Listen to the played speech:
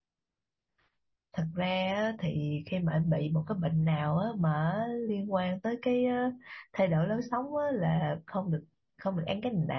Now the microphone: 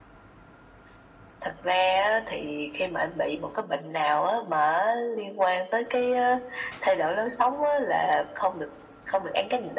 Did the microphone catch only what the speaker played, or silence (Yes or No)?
Yes